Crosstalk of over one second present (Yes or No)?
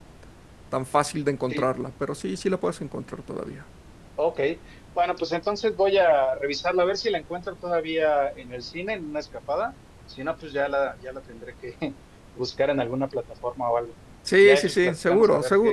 Yes